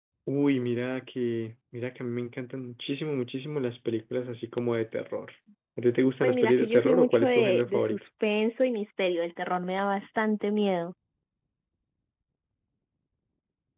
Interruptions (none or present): present